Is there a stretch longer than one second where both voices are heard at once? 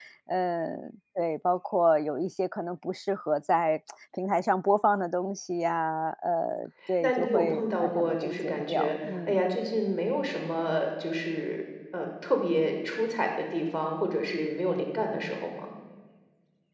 Yes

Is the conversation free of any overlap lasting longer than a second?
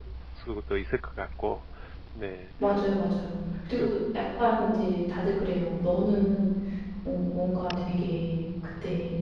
Yes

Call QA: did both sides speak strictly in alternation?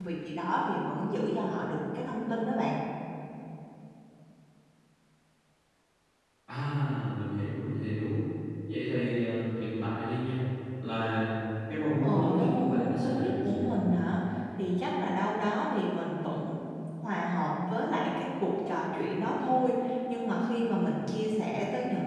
No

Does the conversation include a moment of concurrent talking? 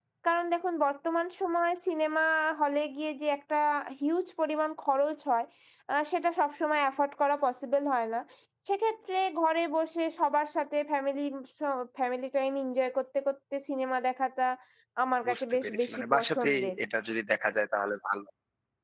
Yes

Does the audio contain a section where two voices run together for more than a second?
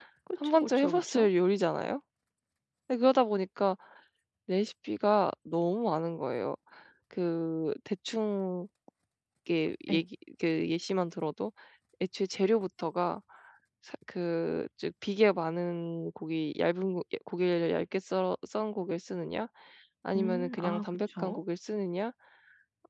Yes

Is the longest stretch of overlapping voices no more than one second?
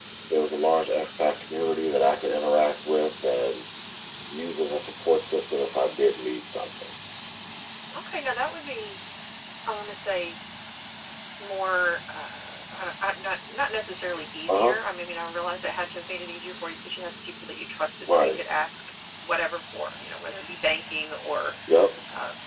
Yes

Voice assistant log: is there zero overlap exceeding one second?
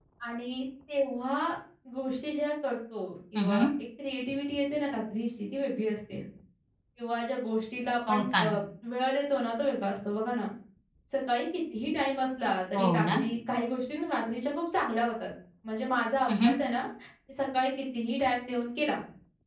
Yes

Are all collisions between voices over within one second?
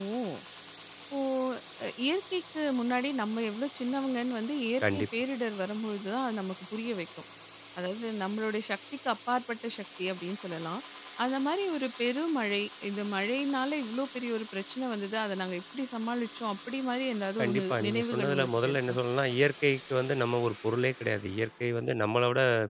No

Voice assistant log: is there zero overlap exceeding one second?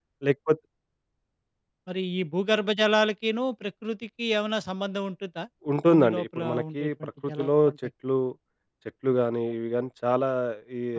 No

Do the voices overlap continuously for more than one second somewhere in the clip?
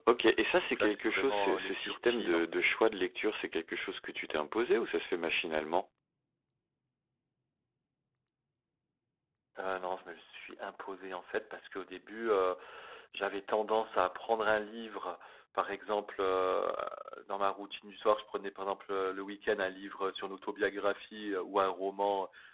Yes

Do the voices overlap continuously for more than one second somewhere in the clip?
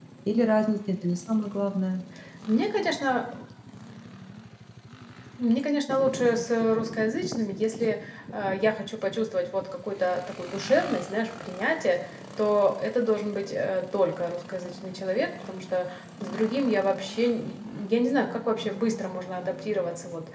No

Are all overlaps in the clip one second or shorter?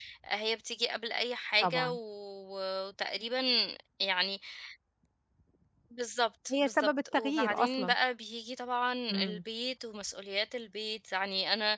No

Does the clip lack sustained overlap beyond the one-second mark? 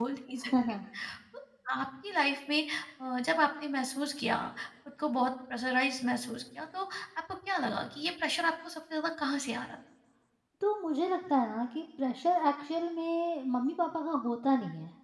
Yes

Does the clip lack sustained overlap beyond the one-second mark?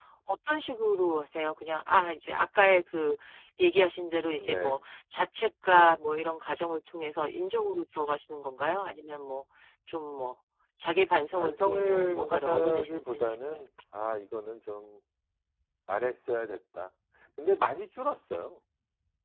No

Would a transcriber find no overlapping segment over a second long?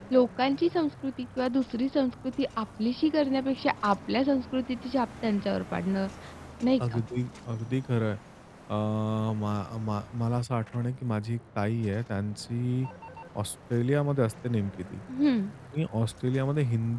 Yes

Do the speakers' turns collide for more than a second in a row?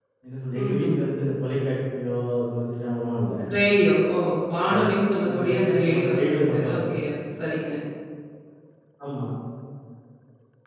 Yes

